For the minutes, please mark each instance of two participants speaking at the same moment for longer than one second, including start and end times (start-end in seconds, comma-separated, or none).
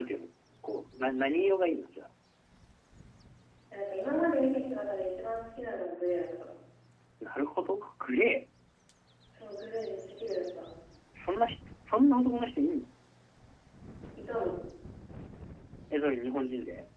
none